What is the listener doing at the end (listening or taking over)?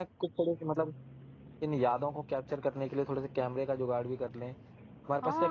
taking over